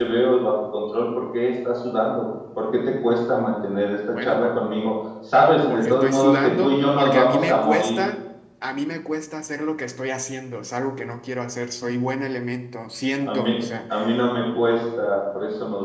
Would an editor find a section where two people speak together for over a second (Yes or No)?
Yes